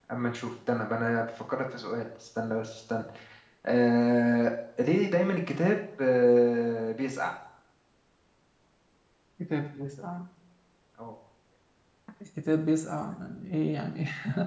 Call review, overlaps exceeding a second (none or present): none